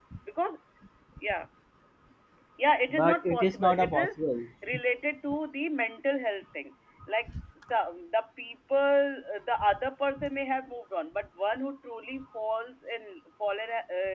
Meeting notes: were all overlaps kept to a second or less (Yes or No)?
No